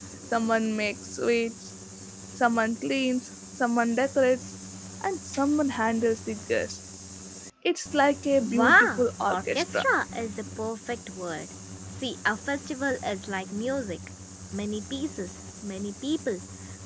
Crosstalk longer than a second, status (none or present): present